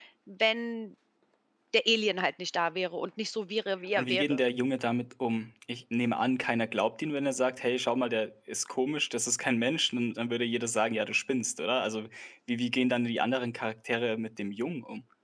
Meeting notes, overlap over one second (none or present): none